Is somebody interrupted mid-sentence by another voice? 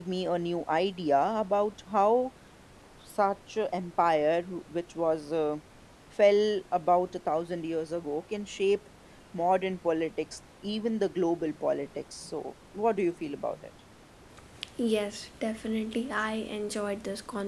No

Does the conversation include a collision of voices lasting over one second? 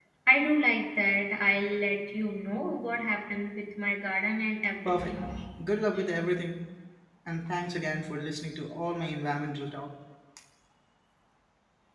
No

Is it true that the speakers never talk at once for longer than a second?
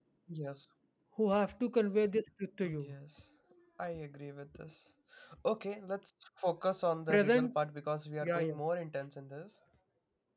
Yes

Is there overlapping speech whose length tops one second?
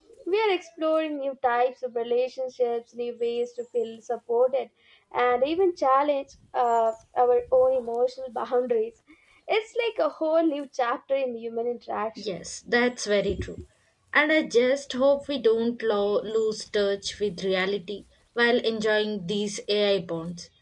No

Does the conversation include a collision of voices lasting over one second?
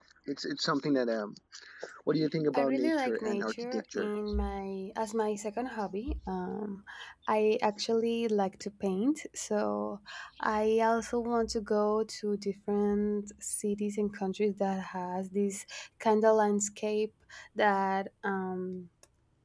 Yes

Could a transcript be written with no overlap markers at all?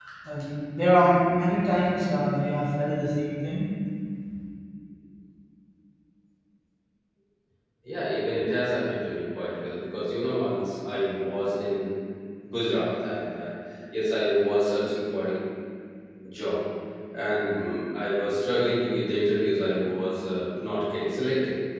Yes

